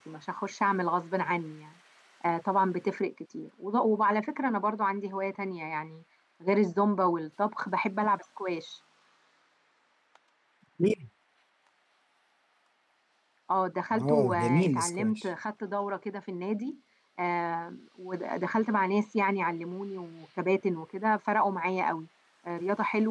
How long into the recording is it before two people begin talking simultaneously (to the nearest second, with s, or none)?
14 s